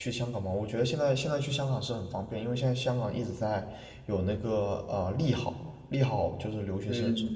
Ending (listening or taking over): taking over